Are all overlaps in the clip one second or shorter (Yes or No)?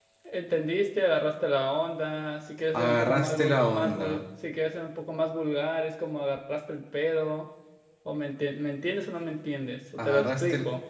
No